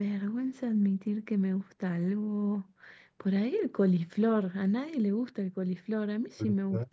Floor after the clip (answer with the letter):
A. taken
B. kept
B